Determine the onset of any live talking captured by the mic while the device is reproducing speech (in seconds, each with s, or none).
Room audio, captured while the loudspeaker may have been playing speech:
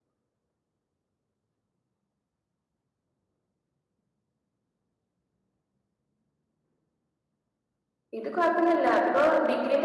8.2 s